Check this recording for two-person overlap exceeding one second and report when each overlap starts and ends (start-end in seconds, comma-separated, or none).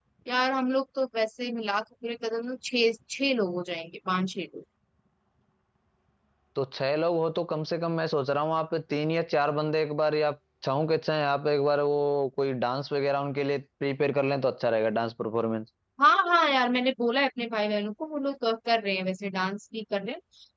none